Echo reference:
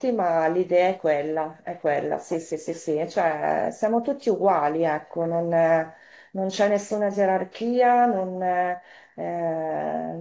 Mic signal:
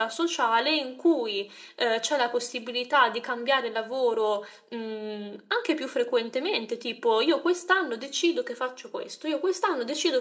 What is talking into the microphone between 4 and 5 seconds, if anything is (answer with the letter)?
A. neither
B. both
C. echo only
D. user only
D